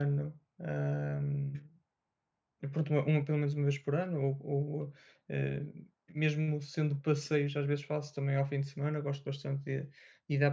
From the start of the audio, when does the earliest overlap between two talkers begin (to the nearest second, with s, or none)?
none